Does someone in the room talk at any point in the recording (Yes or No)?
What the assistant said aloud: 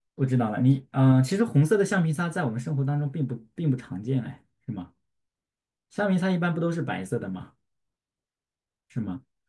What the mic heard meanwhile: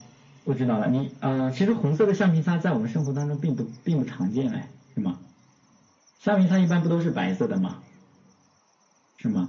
No